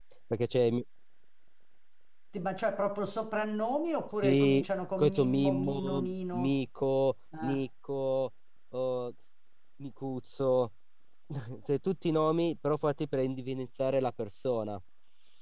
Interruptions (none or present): present